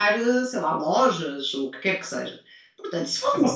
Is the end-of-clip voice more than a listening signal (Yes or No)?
Yes